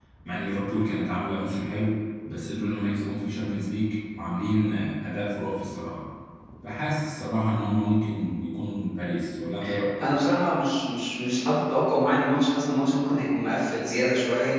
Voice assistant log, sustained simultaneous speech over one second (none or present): none